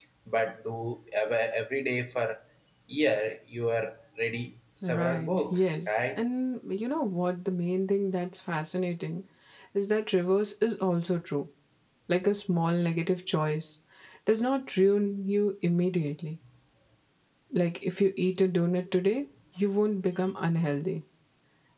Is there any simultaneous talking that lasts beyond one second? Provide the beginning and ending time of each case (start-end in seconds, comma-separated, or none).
4.8-6.2